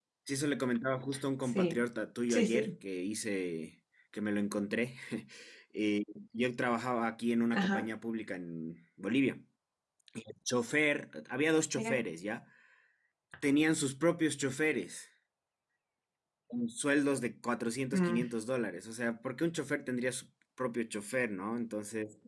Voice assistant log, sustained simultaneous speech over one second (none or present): none